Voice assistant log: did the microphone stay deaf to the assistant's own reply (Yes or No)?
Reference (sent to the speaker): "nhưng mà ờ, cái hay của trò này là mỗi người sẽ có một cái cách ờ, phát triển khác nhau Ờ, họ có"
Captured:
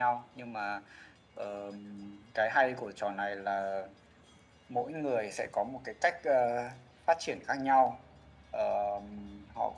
No